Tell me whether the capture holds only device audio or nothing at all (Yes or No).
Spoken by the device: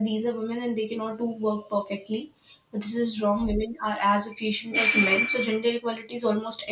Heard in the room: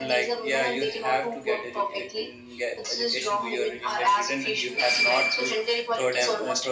No